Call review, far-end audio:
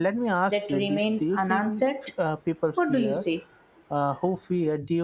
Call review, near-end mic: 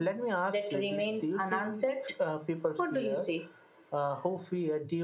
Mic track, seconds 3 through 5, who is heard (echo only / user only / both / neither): echo only